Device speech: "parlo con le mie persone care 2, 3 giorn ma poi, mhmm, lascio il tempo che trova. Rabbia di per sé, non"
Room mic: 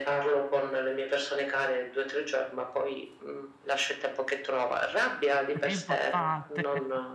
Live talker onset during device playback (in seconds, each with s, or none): 5.5 s